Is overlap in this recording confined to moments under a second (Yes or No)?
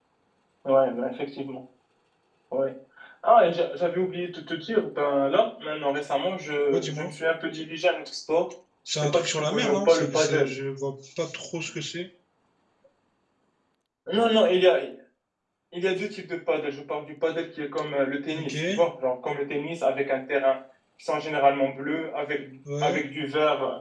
No